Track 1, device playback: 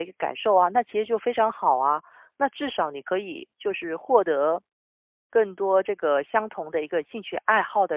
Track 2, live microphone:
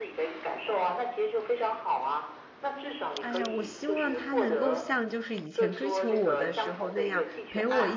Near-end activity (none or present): present